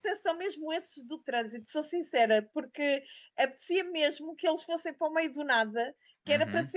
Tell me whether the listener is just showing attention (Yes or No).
Yes